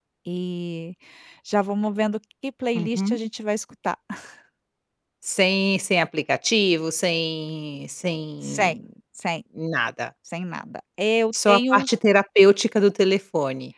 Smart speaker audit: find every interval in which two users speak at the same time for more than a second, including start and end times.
none

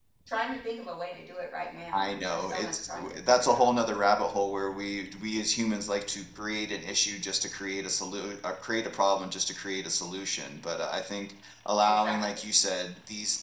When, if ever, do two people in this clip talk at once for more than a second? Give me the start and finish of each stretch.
1.9-3.7

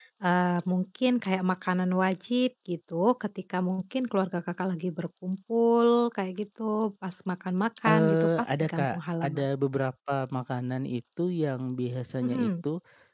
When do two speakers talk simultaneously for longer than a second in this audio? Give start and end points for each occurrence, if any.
7.9-9.4

